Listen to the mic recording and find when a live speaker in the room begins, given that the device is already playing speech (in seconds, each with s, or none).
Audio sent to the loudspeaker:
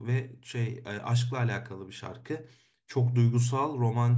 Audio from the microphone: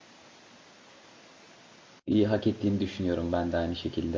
2.1 s